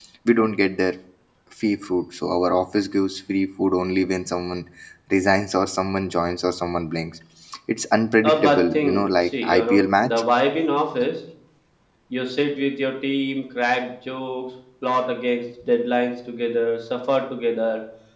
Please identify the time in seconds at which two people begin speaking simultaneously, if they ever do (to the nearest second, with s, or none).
8 s